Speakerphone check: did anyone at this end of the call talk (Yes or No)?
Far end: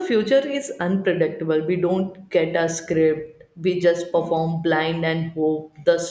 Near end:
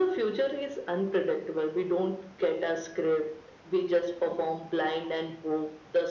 No